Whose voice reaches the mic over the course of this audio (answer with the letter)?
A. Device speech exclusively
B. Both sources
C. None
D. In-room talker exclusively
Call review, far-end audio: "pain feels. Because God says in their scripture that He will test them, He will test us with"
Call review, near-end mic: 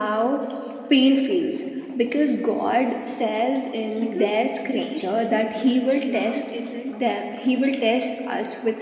B